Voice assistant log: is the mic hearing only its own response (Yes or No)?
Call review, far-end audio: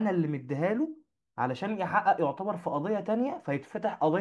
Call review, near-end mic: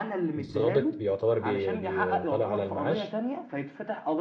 No